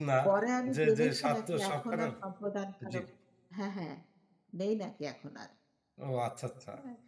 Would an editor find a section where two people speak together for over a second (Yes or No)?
Yes